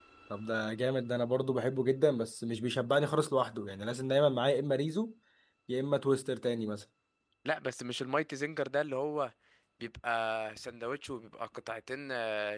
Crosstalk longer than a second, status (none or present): none